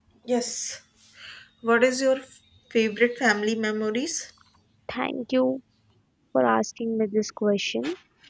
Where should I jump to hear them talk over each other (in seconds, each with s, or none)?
none